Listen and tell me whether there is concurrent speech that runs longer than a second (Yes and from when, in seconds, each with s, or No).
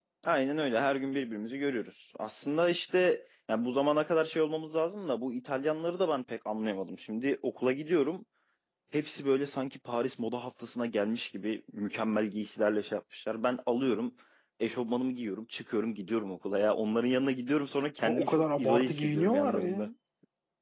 Yes, from 18.1 s